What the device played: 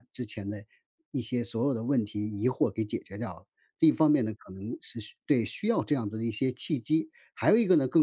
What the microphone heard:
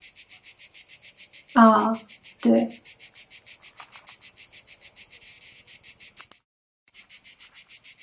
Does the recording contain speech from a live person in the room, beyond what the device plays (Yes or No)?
Yes